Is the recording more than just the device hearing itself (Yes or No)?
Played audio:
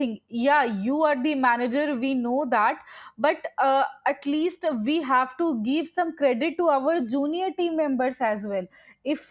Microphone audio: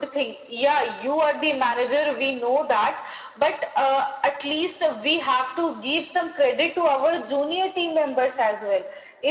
No